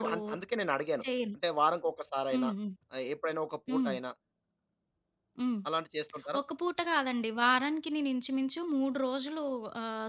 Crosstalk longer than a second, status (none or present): none